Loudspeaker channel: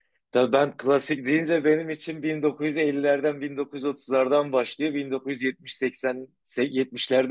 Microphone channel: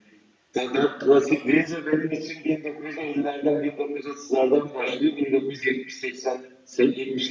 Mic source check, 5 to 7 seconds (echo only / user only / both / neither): echo only